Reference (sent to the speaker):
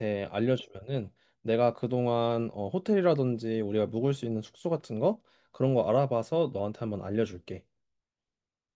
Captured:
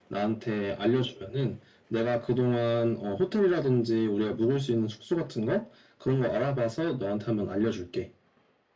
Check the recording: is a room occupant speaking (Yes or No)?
No